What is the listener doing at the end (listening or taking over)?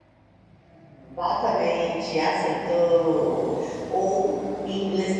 listening